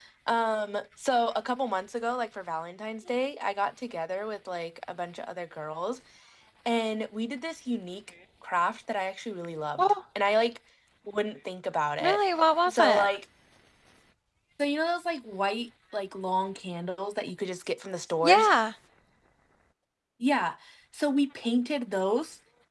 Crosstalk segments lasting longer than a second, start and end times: none

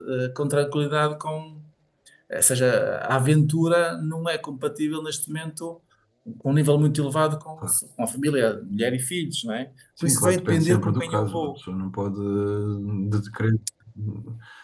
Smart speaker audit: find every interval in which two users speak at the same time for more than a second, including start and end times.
10.0-11.5

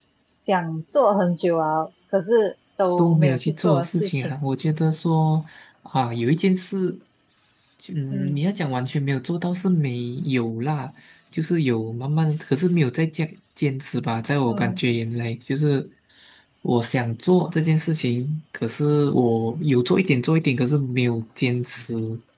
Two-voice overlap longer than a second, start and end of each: 3.0-4.3

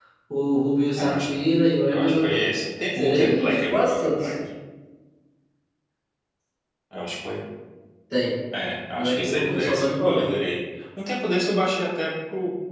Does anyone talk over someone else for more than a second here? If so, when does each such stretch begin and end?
2.9-4.3, 9.0-10.3

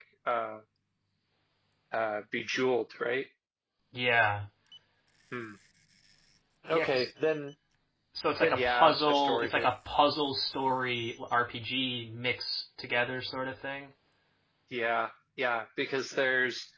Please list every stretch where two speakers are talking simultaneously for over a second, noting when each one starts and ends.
8.4-9.7

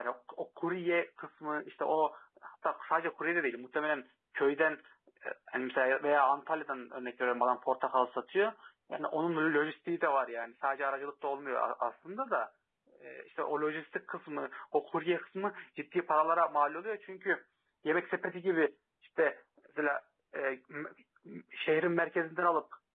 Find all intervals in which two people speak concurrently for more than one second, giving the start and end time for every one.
none

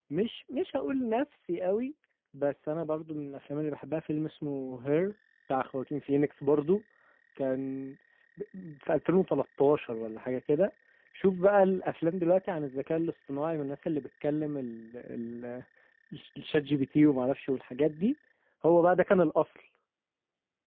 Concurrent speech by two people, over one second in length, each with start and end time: none

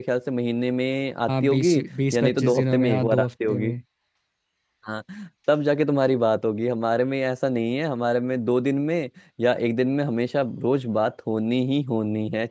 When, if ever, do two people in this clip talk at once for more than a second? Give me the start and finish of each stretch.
2.1-3.7

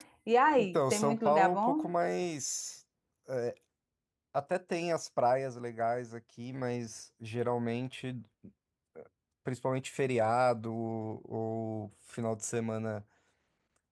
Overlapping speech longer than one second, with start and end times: 0.6-1.8

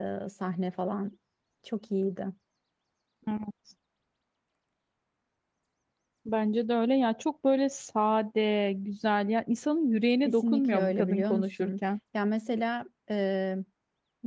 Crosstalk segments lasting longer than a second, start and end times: 10.2-11.7

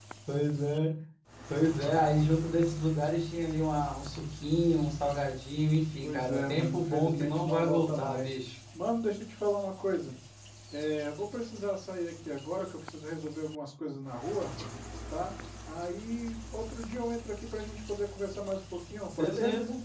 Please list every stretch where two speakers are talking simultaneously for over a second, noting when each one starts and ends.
6.0-8.4

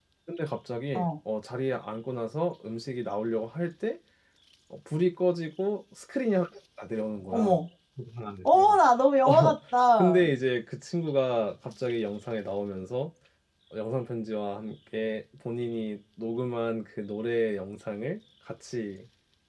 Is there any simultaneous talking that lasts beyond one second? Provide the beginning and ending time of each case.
none

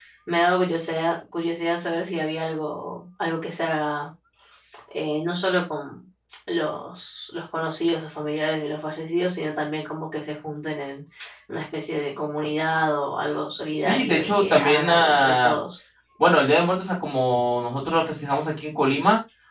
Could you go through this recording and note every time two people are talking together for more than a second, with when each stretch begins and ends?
13.8-15.6

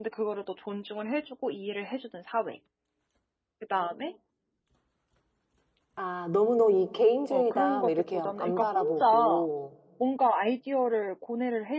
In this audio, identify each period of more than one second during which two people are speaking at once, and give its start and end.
7.3-9.4

